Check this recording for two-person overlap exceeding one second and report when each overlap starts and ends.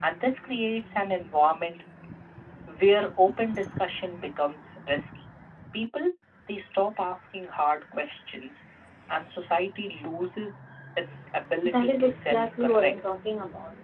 11.6-12.9

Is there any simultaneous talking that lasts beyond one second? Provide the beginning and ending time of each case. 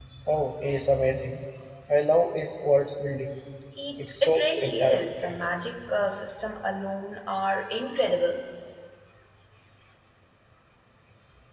4.0-5.4

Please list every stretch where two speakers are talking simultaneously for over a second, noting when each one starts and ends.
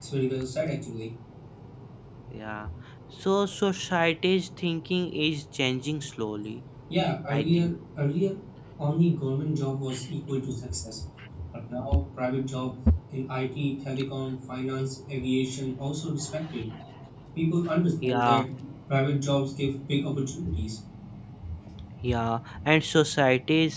none

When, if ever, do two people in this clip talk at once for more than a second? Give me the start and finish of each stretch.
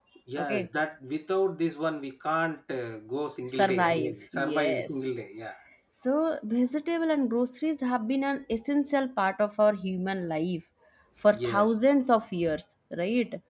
3.5-4.9

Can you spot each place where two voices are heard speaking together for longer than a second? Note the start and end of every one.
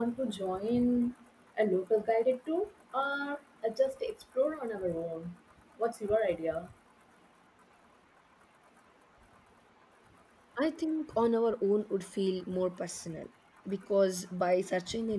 none

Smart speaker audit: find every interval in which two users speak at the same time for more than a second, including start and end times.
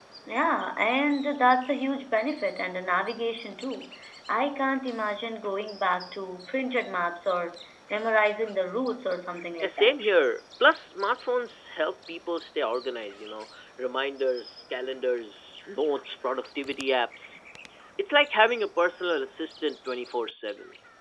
none

